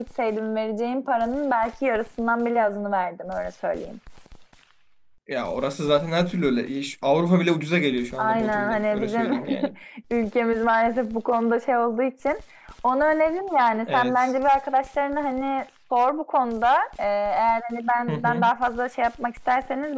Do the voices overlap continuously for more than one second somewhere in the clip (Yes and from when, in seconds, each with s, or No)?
Yes, from 8.2 s